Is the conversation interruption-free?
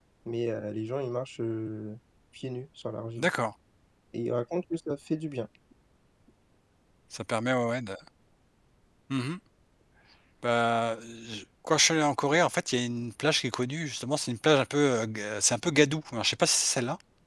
Yes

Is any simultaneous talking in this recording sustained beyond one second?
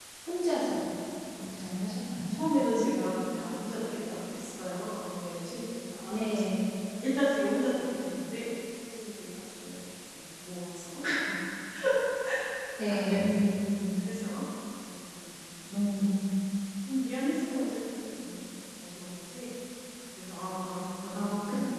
No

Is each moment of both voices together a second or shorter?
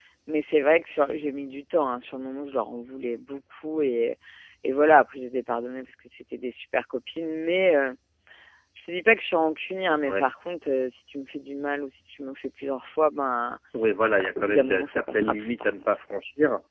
No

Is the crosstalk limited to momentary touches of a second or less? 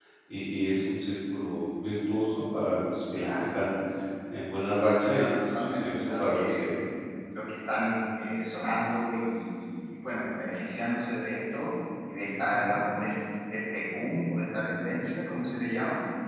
No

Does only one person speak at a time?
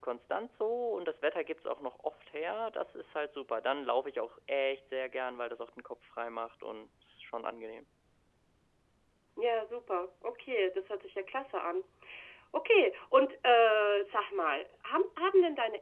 Yes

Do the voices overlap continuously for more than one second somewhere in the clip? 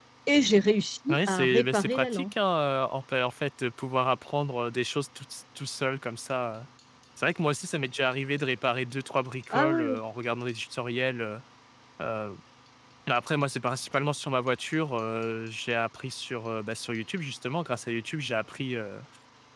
Yes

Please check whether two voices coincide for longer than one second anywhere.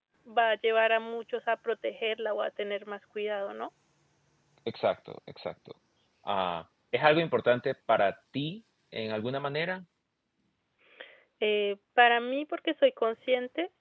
No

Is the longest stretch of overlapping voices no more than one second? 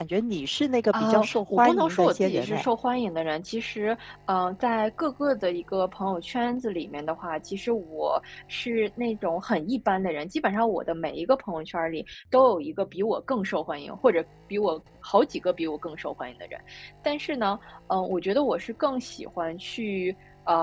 No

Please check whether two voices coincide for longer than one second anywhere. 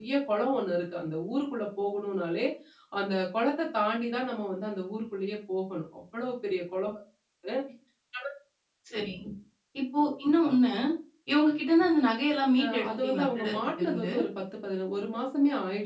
Yes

